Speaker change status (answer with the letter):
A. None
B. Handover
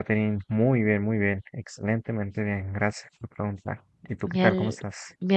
B